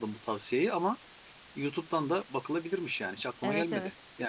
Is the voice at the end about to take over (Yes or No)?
Yes